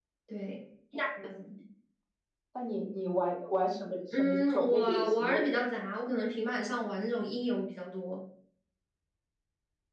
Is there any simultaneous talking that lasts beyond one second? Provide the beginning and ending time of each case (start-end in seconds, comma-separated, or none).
4.2-5.7